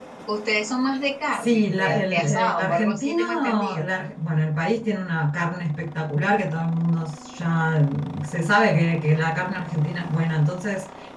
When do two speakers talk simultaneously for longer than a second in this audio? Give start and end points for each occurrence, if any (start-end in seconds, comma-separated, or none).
1.3-3.9